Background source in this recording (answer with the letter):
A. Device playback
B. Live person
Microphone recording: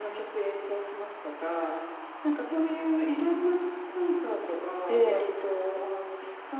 A